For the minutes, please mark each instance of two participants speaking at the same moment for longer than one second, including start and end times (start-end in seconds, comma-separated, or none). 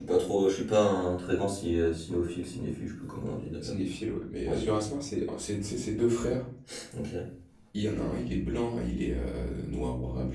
none